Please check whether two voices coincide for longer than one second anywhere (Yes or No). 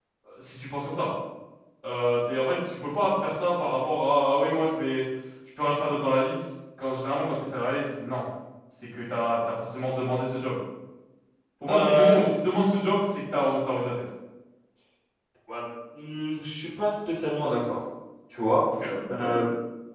No